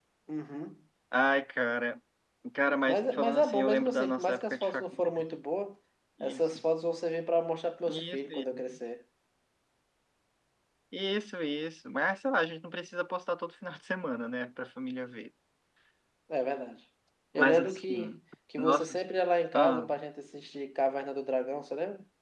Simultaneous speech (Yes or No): Yes